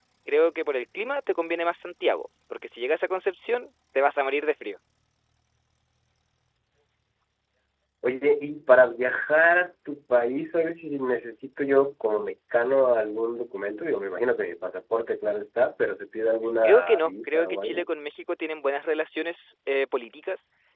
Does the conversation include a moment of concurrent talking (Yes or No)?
Yes